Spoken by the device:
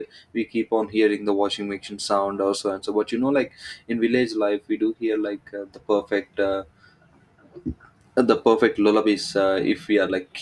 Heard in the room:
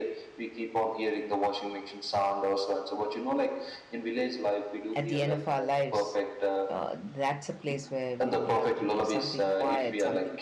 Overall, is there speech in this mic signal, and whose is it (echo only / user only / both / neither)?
both